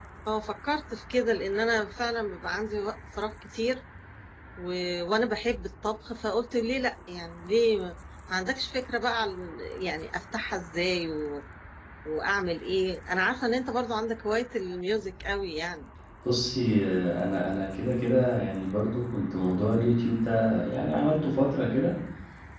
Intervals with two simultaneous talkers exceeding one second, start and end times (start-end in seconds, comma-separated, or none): none